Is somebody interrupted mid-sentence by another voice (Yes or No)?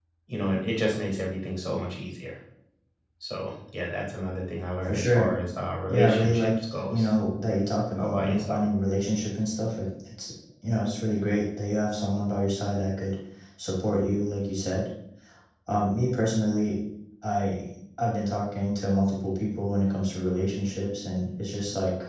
Yes